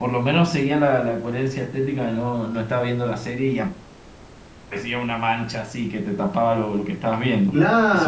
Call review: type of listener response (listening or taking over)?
taking over